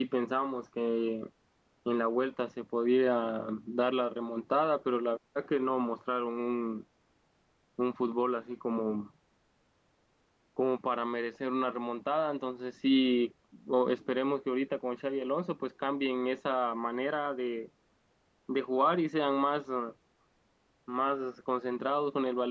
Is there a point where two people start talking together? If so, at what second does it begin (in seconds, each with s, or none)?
none